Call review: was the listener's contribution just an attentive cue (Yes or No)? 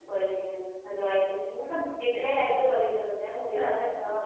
Yes